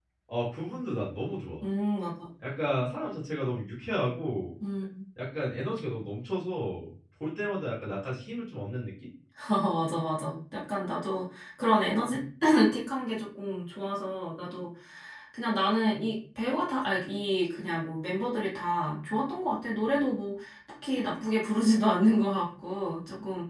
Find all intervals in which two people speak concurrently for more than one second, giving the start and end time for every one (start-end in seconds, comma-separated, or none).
none